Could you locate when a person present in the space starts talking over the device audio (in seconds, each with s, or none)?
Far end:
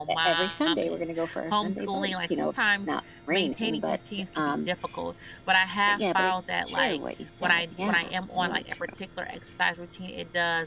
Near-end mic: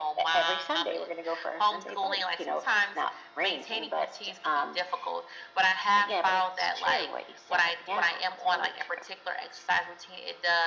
none